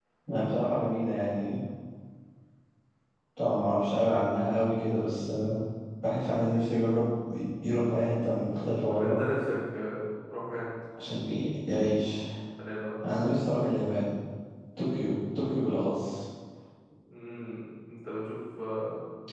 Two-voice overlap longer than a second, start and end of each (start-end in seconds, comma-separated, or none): none